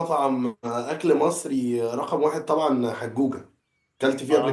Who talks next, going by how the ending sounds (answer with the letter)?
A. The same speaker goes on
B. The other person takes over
B